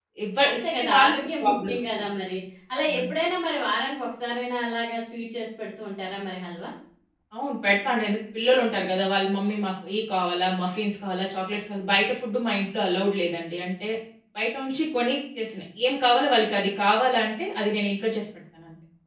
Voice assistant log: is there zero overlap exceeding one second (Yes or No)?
No